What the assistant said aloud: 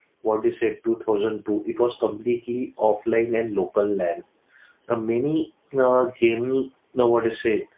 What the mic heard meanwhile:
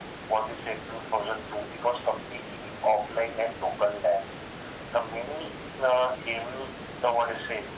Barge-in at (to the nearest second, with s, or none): none